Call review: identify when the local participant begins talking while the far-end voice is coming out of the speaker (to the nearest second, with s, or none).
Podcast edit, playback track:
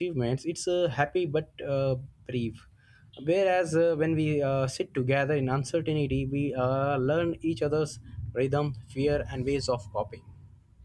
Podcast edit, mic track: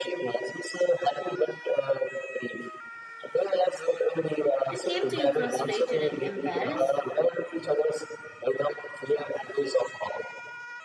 5 s